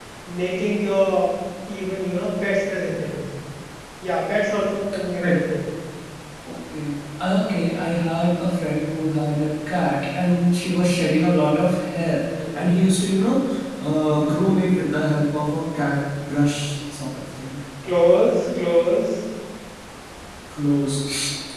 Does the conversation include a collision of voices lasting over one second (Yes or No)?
No